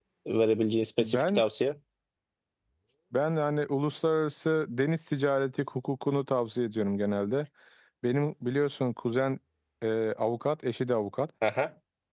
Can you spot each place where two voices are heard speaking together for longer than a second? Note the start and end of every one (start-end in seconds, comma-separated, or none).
none